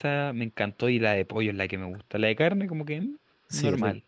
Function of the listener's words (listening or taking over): taking over